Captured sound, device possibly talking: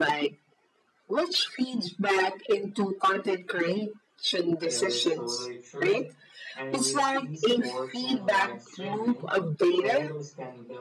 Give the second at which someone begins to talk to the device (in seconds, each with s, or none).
4.6 s